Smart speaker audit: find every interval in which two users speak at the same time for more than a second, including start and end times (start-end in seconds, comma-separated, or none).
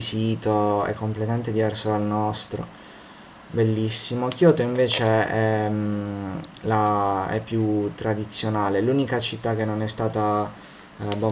none